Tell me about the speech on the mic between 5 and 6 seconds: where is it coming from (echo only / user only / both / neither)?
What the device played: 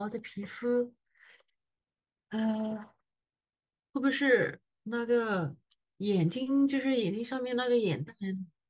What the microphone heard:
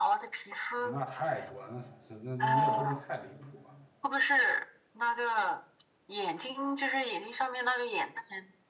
echo only